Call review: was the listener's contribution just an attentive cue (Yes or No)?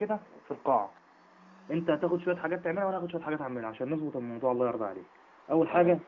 Yes